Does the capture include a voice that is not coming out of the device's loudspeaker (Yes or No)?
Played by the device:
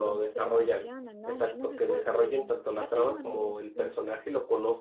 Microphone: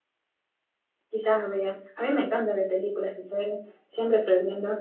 Yes